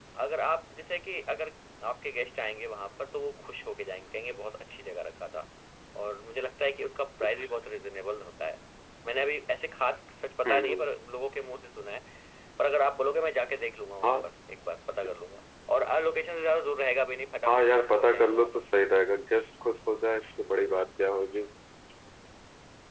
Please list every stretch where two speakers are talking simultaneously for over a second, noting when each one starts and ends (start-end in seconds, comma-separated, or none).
17.4-18.7